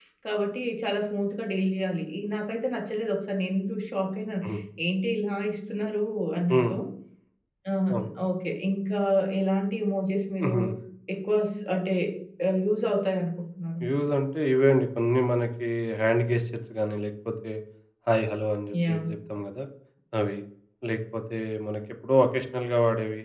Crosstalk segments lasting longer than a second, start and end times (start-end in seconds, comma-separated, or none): none